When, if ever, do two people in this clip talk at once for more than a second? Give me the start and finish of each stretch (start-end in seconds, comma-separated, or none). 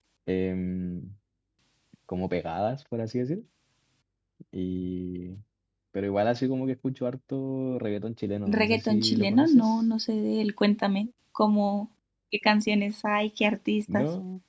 8.5-9.8